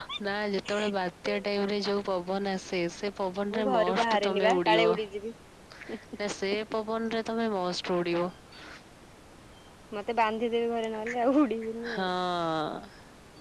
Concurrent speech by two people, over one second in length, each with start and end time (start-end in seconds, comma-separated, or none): 3.5-5.0